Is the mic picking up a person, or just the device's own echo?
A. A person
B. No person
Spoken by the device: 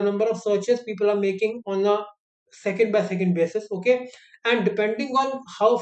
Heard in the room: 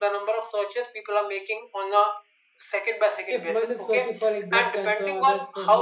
A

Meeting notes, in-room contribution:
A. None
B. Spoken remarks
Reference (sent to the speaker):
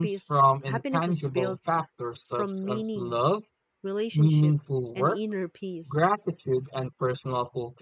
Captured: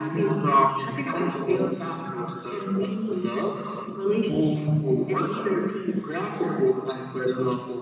A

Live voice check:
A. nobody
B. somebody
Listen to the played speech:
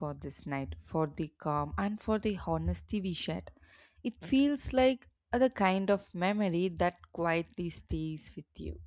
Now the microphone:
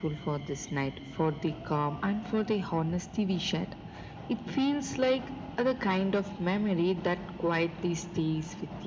A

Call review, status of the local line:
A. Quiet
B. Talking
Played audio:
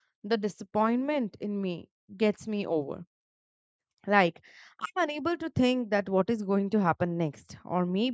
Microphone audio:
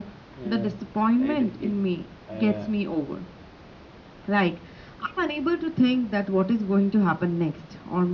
B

